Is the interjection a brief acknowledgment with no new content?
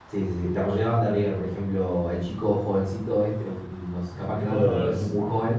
Yes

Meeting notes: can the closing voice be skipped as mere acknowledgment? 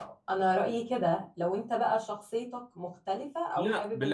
No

